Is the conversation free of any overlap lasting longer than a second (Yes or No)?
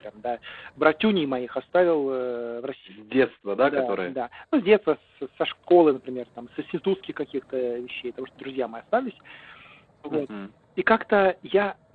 Yes